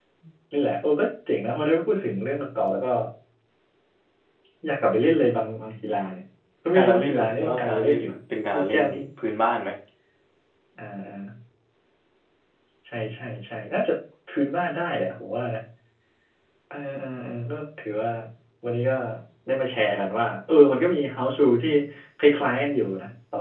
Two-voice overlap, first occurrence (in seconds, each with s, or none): 6.7 s